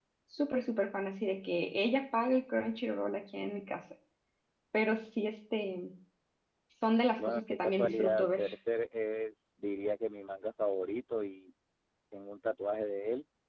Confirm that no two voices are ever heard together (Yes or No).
No